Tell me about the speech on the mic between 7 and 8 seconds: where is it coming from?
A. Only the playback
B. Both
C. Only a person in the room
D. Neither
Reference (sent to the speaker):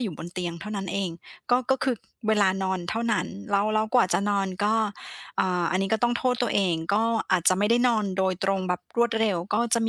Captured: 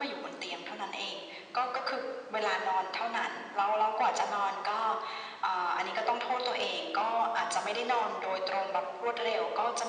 A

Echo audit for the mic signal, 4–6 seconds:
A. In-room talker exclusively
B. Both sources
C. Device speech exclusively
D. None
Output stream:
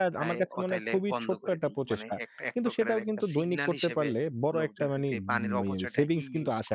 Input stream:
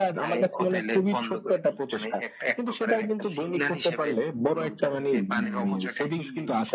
C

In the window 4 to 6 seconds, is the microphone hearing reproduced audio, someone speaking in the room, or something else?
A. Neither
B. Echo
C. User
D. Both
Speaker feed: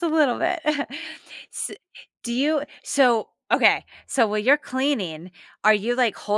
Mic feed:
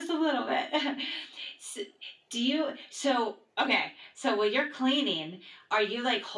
B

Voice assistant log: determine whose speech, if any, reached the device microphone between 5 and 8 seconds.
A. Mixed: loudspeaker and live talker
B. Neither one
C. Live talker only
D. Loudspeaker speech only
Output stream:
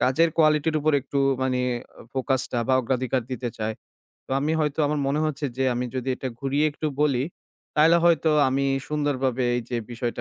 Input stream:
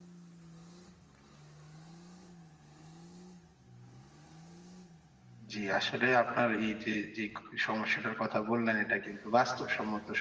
C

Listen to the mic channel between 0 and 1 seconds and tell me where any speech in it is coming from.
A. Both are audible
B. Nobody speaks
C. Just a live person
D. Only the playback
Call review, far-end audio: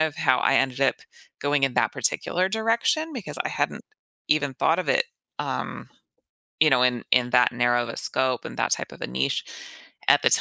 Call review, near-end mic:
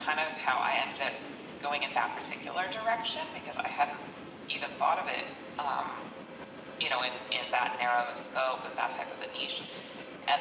D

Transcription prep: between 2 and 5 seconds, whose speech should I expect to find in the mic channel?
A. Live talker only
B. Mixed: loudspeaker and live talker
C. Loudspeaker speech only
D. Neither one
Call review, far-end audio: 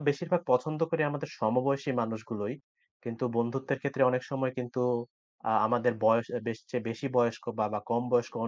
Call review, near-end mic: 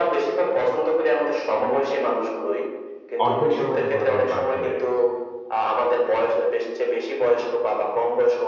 B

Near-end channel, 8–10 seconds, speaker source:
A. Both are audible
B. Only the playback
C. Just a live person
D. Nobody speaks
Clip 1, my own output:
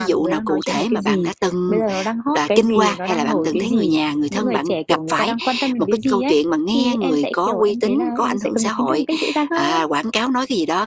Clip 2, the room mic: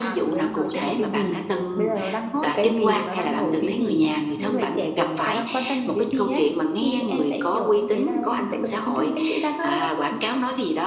B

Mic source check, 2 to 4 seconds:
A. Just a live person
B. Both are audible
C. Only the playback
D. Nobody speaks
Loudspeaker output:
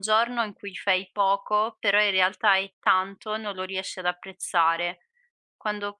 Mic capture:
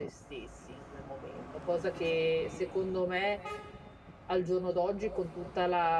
A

